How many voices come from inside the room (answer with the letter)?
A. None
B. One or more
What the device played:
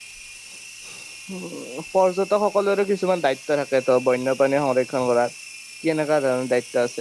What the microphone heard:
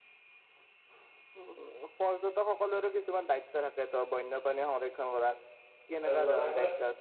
B